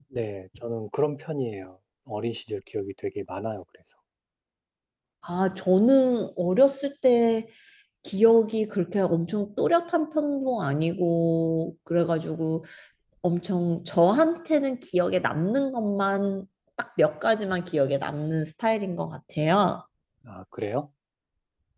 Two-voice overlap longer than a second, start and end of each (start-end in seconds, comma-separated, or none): none